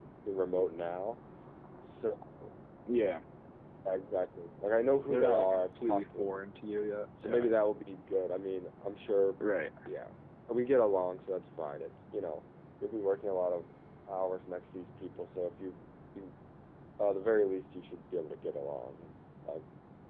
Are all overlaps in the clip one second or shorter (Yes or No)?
No